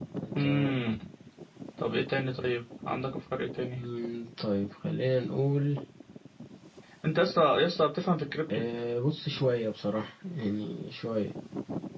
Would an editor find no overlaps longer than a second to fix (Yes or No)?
Yes